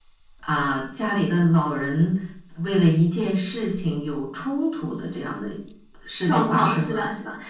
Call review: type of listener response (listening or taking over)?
taking over